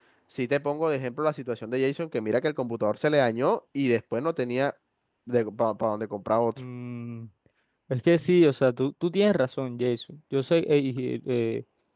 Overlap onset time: none

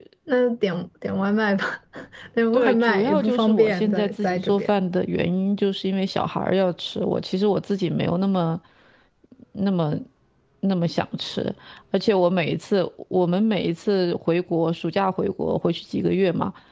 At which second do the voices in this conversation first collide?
2.5 s

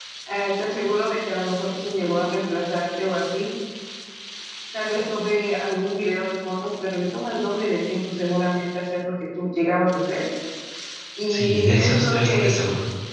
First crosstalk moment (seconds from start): 11.3 s

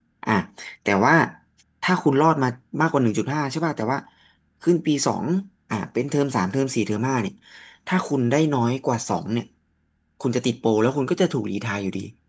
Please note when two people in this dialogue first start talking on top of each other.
none

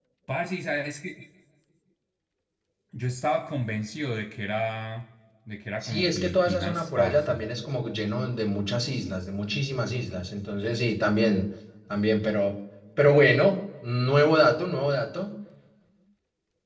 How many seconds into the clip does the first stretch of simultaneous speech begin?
5.8 s

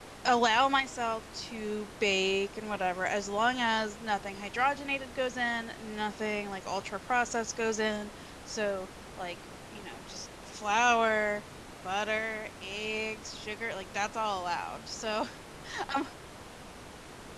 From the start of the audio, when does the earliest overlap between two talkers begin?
none

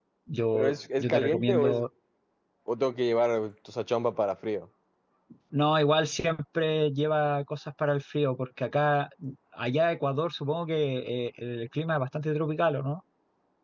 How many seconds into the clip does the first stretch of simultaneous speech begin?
0.5 s

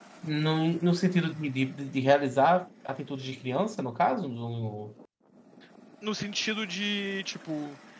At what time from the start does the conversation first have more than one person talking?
none

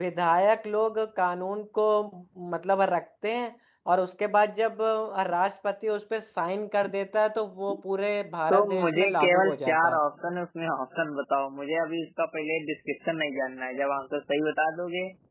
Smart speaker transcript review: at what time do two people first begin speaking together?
8.5 s

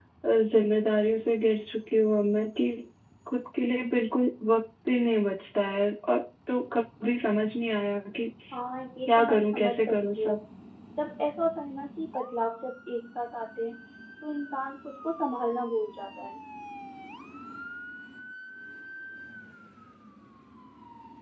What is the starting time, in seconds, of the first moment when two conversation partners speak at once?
9.1 s

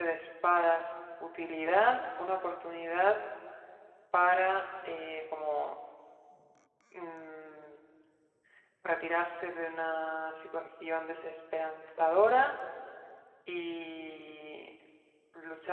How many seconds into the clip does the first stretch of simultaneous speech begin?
none

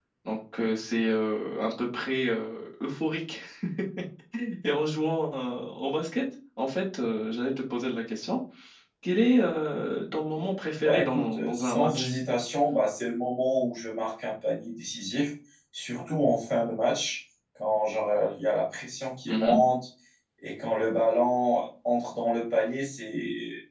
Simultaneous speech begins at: 10.8 s

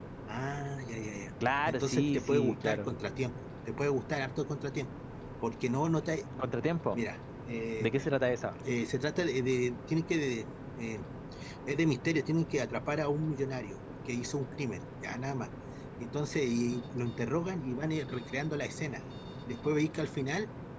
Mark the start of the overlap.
1.7 s

